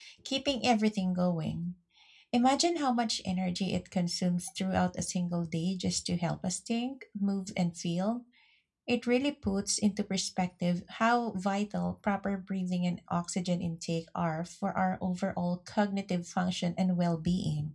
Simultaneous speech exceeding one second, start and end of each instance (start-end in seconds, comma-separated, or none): none